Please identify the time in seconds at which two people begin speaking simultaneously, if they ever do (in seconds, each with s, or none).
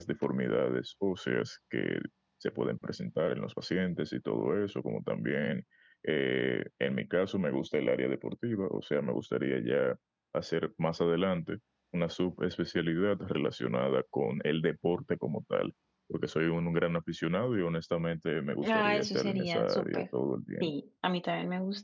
18.6 s